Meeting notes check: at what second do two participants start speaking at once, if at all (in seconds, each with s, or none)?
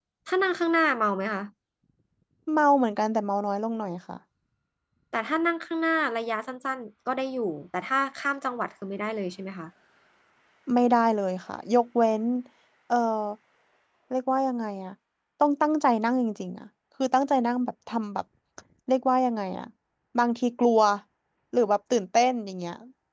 none